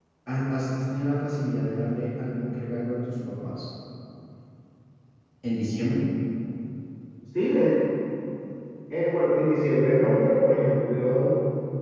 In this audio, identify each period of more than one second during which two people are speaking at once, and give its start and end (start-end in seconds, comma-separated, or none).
none